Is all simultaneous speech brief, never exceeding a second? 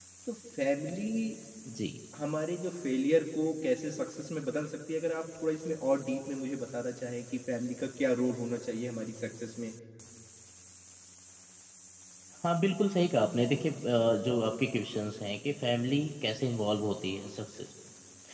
Yes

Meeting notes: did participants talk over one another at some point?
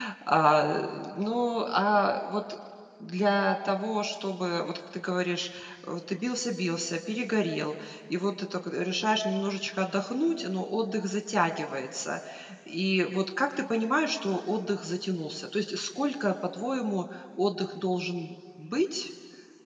No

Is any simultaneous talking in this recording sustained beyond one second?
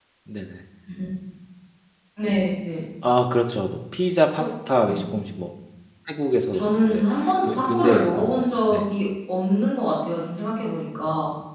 Yes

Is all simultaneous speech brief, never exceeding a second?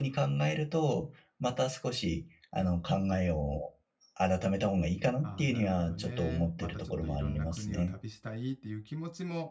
No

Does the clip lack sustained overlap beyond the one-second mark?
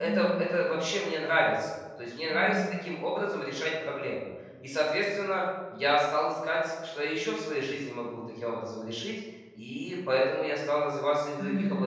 Yes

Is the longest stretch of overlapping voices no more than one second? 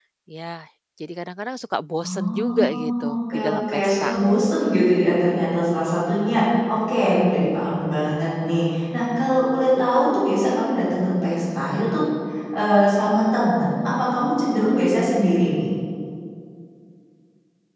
No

